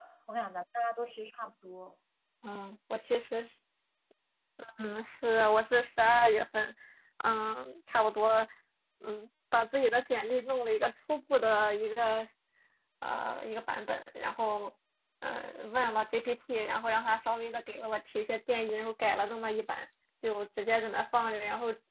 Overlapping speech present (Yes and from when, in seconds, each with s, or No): No